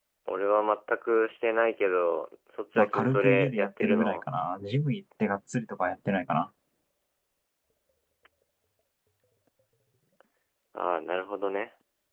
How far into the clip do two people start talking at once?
2.8 s

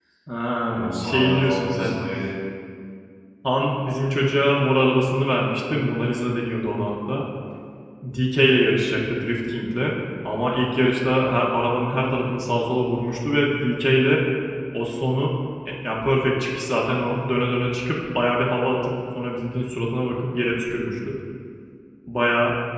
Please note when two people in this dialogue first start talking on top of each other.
0.7 s

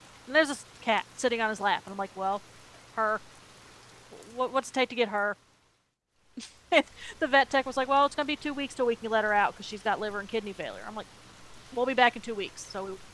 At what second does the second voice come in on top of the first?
none

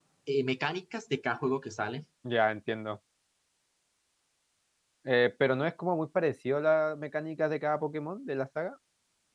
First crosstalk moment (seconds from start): none

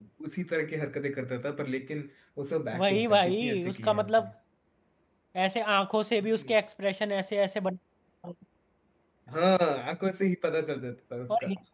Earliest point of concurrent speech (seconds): 2.8 s

